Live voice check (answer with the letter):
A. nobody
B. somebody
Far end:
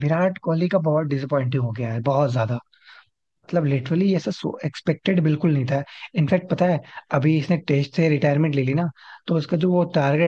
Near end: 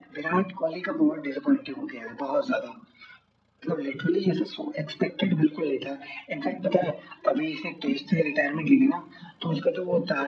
A